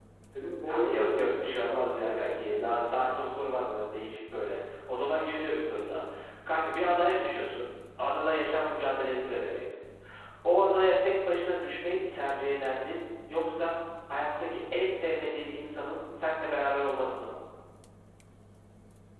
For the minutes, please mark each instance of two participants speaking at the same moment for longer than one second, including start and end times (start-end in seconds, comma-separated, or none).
0.7-3.1